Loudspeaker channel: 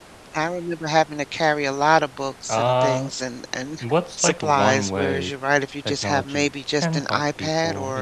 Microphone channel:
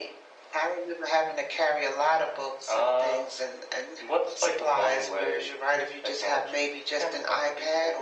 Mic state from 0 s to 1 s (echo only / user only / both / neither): echo only